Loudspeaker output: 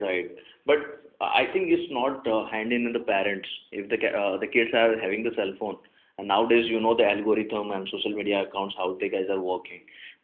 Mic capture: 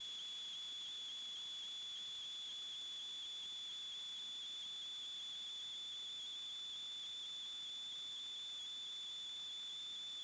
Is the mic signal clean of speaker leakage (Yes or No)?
Yes